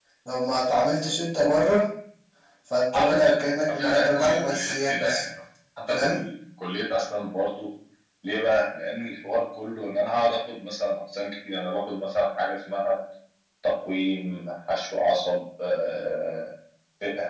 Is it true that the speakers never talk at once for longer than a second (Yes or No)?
No